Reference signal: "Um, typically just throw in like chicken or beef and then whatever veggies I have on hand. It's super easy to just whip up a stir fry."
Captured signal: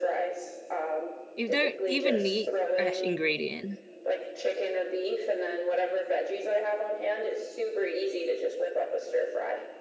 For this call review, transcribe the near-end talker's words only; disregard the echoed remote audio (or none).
You don't even need fresh ingredient.